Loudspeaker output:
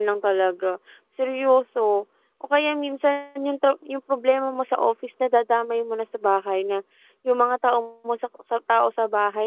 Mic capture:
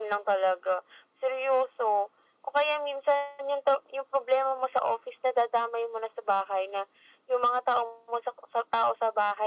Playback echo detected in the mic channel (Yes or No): Yes